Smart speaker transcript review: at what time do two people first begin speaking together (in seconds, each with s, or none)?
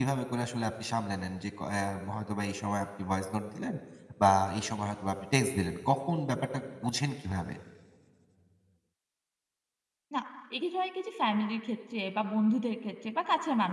none